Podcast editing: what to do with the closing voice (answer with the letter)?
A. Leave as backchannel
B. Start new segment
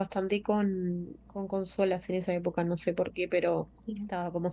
A